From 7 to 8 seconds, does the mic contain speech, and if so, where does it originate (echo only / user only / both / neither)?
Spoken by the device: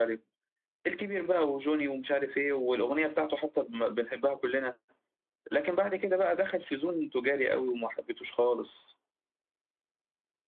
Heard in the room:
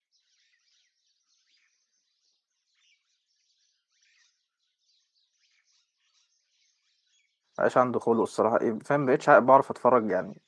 user only